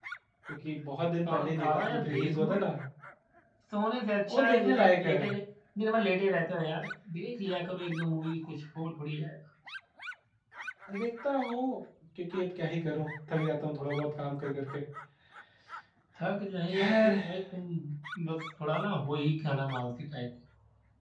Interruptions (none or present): present